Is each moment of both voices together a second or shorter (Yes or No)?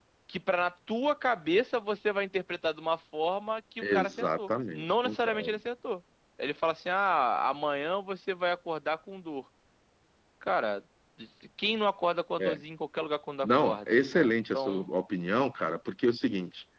No